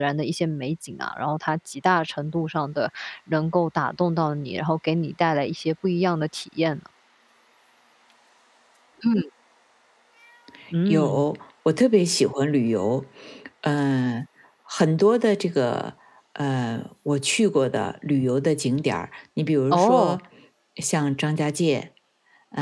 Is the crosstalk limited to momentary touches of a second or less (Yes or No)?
Yes